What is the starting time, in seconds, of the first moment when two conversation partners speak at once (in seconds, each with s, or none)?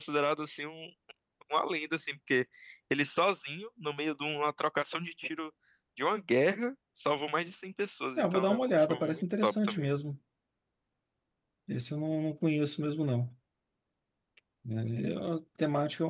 8.2 s